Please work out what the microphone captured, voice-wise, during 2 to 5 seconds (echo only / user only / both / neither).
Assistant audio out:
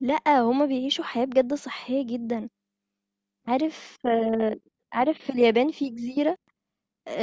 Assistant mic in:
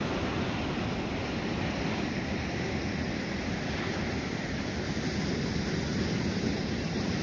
neither